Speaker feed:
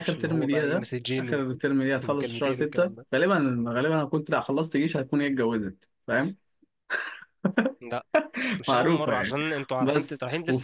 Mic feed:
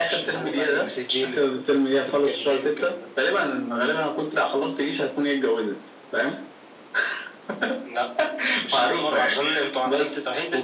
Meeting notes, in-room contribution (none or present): none